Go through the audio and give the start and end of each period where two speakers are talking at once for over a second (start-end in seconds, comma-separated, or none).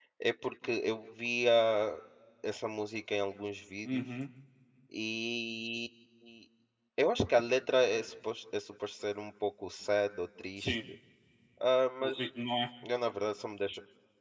none